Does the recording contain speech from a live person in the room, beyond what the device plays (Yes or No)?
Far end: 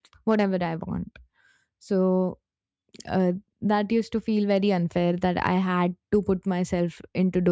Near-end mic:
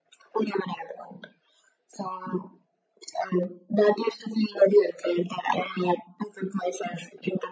No